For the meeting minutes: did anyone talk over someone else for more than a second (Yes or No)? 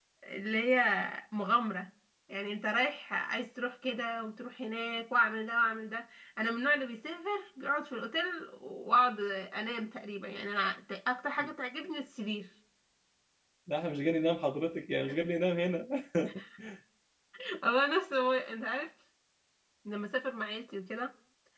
No